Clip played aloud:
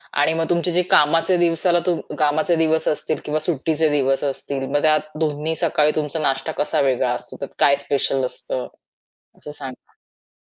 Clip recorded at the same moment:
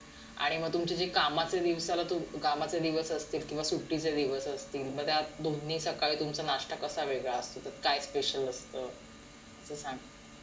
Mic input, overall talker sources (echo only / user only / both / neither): echo only